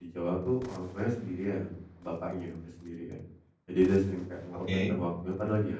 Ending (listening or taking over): listening